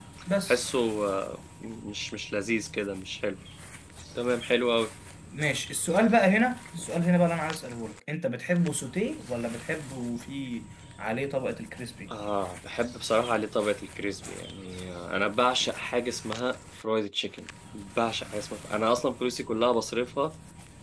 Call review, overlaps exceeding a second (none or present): none